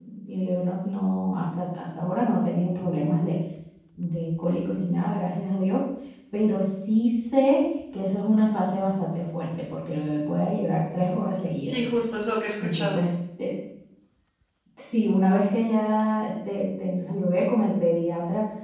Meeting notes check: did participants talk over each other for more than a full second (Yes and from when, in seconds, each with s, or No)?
No